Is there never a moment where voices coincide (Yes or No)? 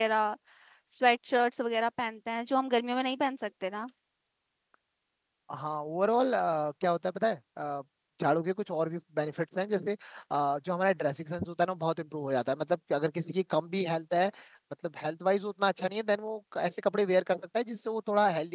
Yes